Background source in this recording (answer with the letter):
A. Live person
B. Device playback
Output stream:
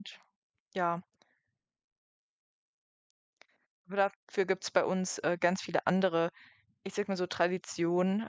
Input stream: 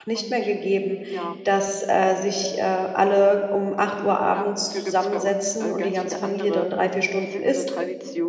B